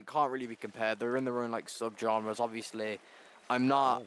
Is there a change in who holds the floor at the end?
No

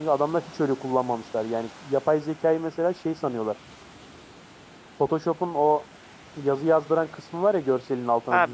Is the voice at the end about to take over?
Yes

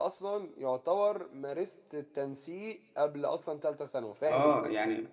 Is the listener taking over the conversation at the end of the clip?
Yes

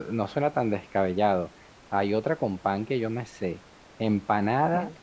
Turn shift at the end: No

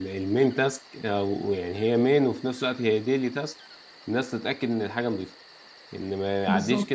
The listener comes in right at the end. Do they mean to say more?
No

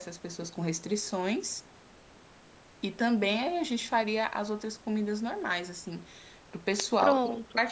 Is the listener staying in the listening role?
Yes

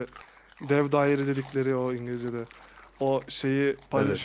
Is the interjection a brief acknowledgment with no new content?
Yes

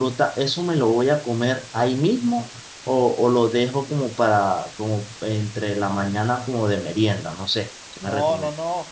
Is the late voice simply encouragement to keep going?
No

